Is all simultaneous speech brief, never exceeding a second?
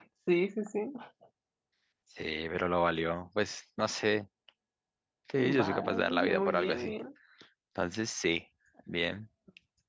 No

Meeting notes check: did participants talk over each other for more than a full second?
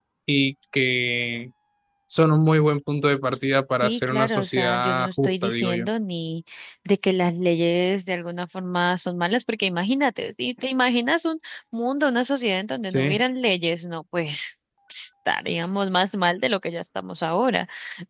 Yes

